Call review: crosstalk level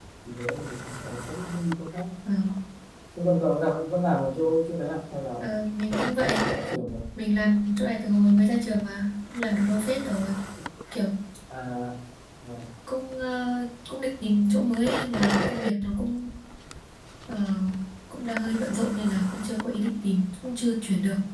none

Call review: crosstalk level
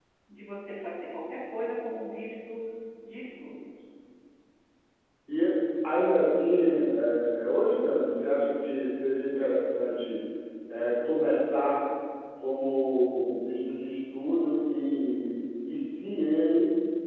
none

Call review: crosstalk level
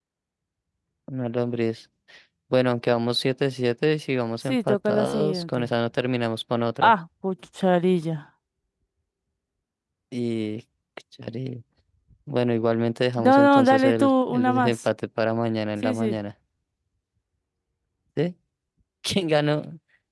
present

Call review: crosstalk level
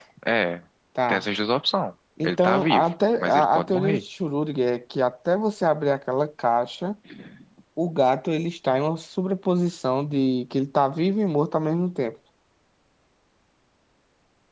present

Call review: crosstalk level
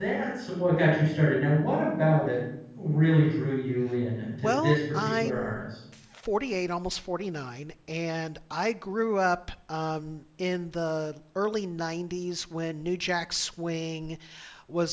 present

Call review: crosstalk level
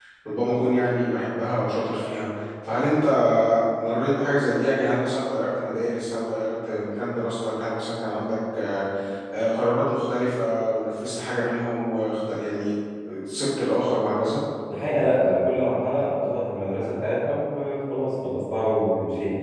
none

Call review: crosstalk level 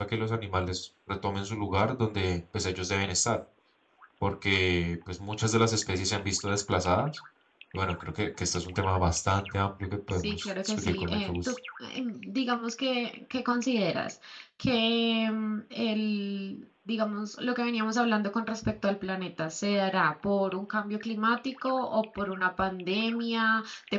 present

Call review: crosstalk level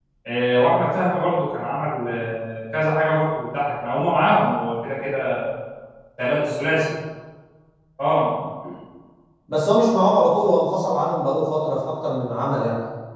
none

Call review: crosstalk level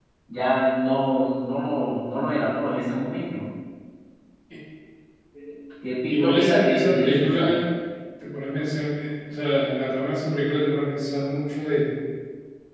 present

